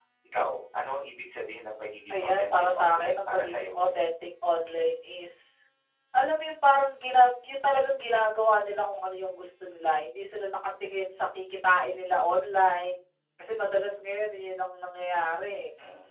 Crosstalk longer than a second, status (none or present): present